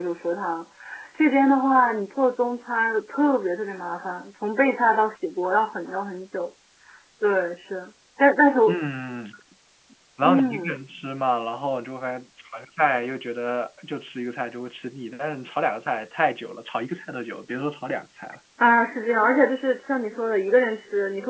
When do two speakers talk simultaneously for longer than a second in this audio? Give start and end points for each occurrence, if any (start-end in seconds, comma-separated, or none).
none